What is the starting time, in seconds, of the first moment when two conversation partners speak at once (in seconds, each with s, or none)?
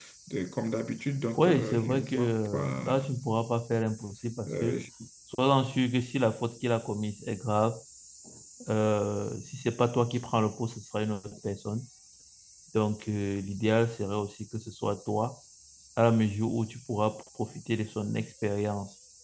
1.4 s